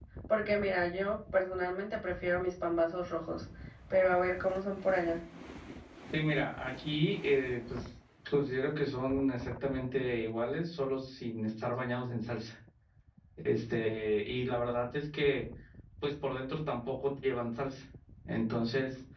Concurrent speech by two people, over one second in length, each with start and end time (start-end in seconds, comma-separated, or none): none